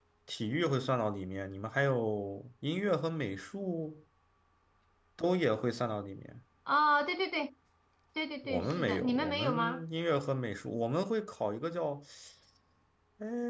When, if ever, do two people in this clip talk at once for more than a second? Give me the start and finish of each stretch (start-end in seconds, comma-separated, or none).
8.4-9.8